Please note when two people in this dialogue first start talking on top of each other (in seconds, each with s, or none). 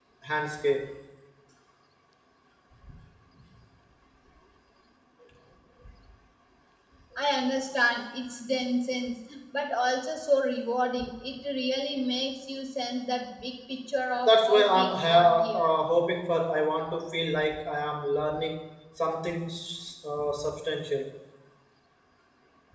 14.3 s